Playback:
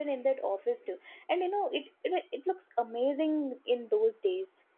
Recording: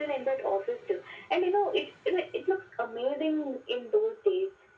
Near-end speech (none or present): none